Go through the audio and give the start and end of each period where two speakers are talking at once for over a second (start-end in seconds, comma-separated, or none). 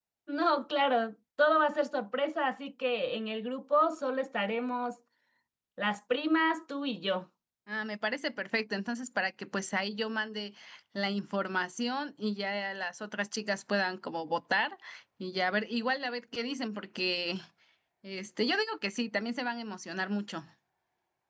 none